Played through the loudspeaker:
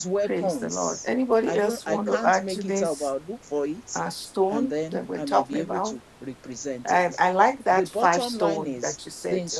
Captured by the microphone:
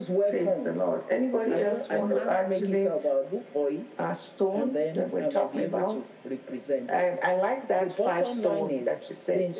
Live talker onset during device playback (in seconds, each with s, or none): none